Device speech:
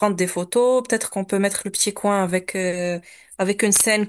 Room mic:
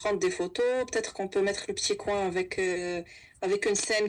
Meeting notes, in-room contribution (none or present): none